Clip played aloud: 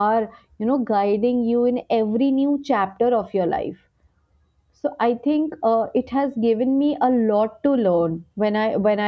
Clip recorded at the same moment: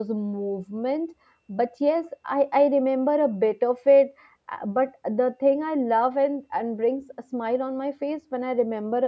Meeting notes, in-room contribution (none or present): present